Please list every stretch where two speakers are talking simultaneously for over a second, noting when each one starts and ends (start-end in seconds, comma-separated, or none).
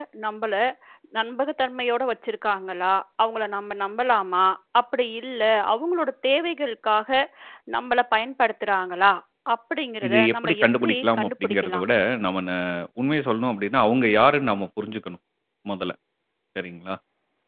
10.1-11.8